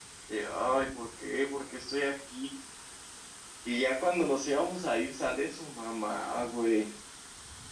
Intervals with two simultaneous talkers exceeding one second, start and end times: none

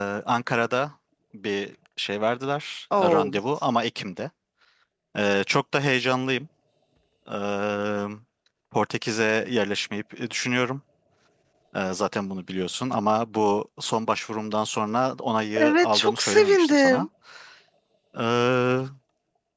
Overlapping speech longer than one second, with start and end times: 15.6-17.1

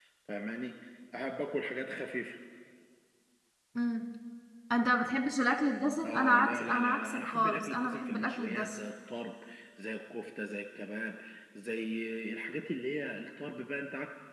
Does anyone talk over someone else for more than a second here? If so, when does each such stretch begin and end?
6.0-8.8

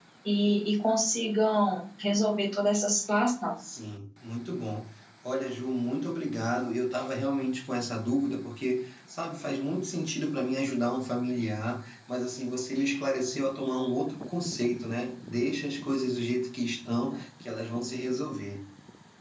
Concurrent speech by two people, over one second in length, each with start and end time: none

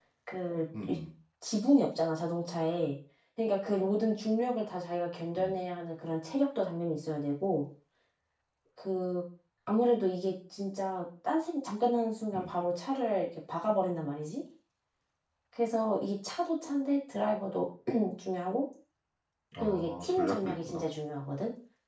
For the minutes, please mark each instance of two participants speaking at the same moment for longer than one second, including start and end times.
19.6-20.8

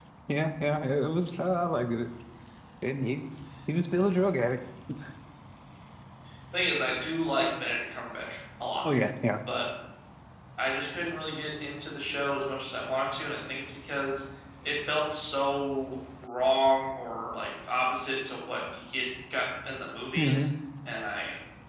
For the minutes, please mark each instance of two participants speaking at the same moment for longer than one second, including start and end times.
none

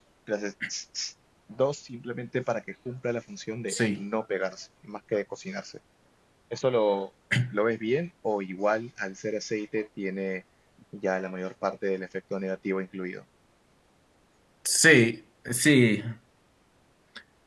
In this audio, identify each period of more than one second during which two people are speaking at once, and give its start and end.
none

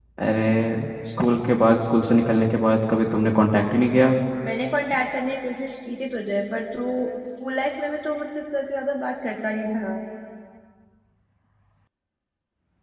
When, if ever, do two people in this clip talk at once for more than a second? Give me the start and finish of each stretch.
none

